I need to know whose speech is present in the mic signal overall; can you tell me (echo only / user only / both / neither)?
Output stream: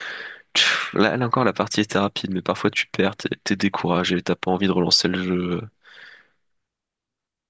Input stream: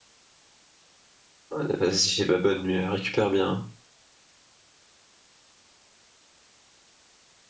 user only